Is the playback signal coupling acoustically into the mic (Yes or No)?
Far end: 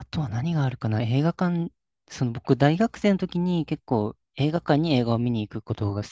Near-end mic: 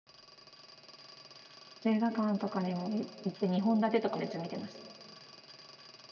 No